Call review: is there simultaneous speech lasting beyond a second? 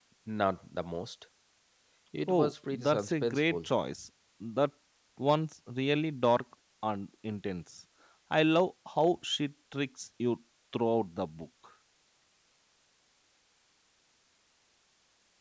Yes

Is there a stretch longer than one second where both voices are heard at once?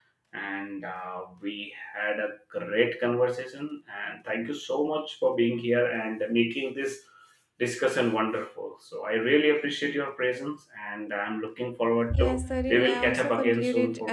Yes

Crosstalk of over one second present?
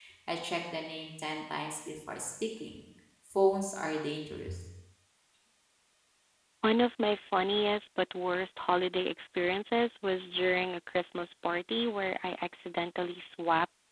No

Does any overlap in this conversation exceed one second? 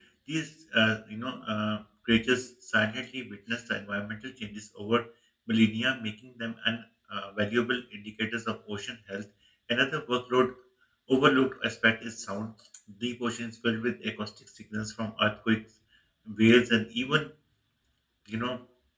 No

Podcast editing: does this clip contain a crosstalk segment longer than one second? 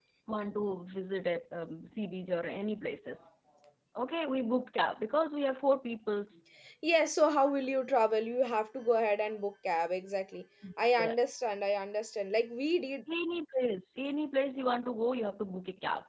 No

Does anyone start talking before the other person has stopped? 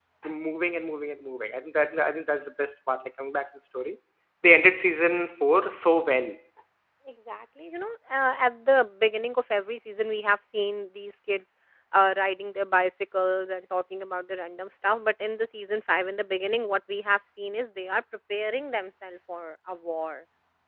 No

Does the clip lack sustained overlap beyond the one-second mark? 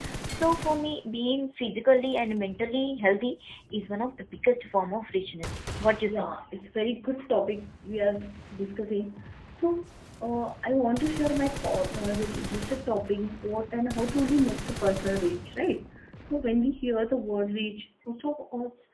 Yes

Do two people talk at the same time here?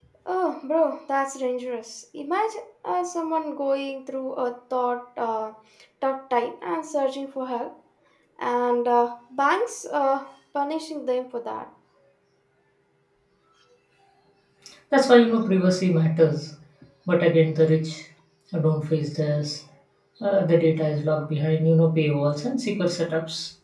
No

